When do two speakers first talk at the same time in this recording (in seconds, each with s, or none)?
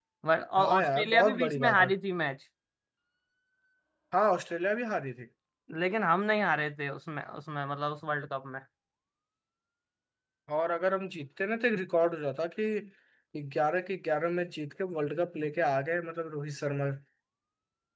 0.6 s